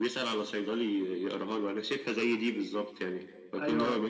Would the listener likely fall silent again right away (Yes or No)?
Yes